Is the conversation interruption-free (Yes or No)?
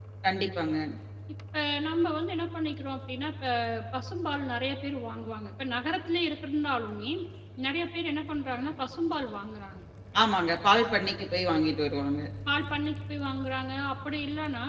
Yes